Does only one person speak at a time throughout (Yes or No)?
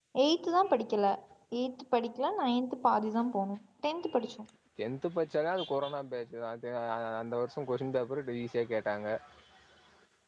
Yes